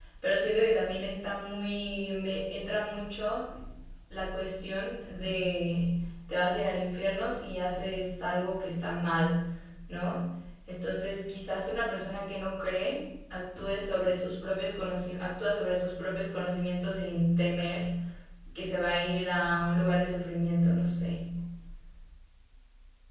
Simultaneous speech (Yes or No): No